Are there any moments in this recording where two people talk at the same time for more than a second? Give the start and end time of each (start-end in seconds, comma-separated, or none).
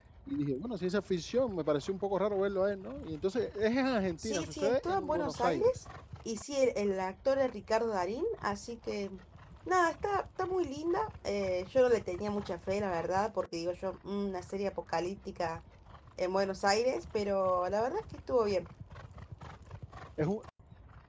4.2-5.7